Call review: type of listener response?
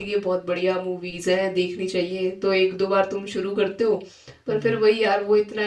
listening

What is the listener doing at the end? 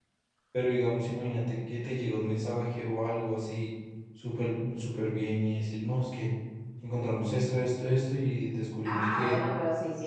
taking over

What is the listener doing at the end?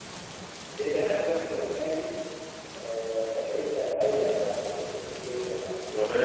taking over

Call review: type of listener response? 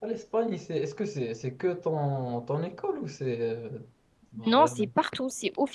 taking over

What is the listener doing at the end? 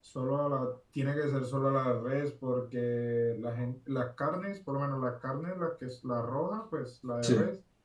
listening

